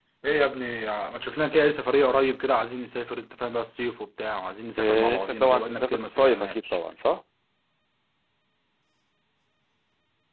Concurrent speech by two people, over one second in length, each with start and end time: 4.8-6.8

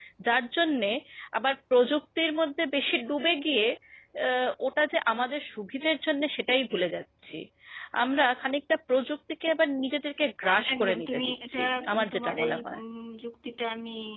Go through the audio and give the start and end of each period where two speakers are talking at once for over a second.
10.5-12.8

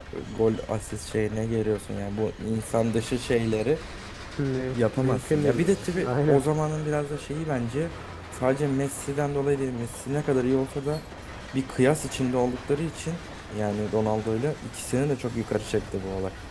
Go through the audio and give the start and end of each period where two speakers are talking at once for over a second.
4.7-6.4

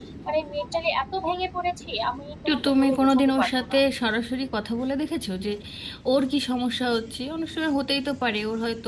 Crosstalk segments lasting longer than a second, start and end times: 2.5-3.8

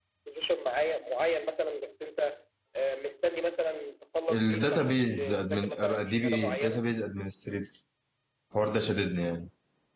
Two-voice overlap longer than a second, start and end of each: 4.3-6.8

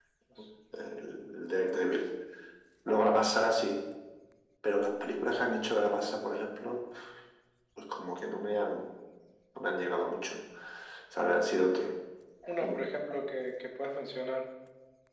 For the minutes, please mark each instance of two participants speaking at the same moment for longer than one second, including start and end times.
none

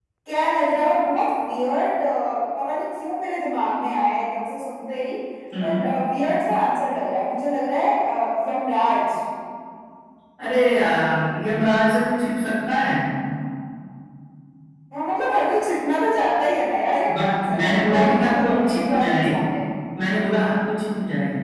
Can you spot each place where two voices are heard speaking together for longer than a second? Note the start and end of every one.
17.1-19.3

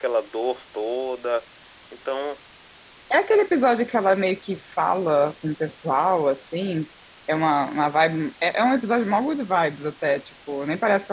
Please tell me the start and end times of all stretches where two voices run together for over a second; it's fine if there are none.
none

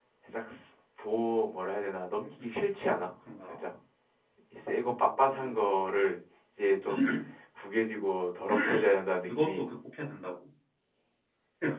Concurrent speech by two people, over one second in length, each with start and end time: none

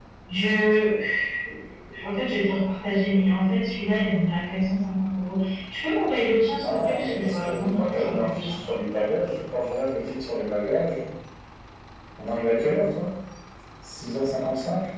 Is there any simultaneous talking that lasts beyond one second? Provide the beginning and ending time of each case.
6.6-8.6

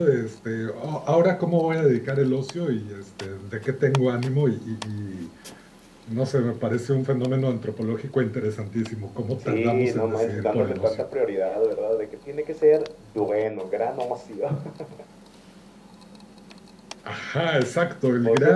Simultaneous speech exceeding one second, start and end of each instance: 9.5-11.0

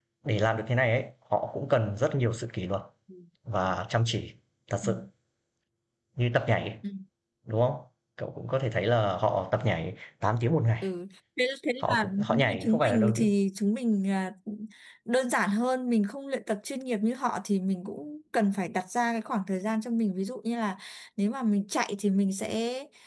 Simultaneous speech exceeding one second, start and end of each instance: 11.9-13.3

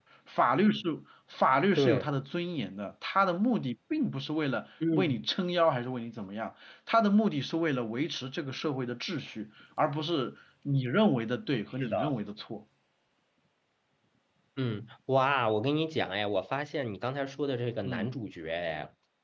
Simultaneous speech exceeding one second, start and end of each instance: none

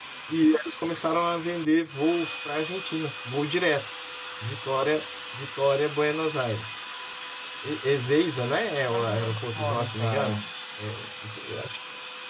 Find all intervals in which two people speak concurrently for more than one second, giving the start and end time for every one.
8.8-10.4

